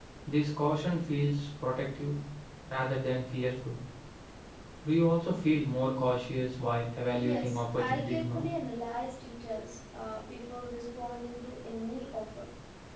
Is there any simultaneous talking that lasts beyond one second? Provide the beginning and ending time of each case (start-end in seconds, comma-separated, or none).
7.2-8.4